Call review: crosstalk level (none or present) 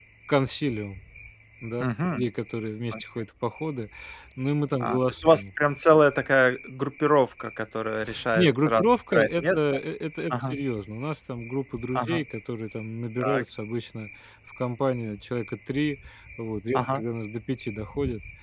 present